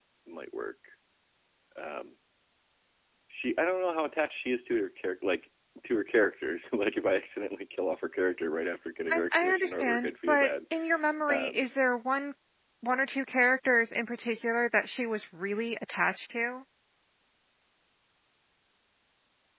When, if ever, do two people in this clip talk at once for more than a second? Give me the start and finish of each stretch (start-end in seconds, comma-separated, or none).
9.1-10.5